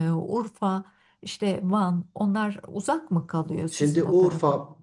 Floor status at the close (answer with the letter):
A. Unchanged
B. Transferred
B